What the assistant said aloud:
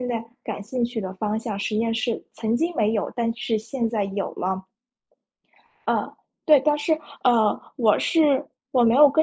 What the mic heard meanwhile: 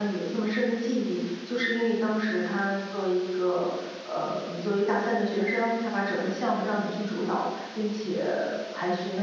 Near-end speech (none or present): present